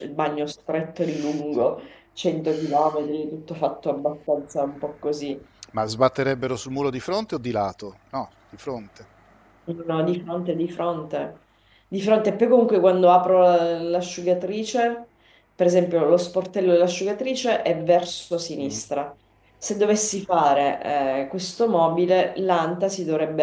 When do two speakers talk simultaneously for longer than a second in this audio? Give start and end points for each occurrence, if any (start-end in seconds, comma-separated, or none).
none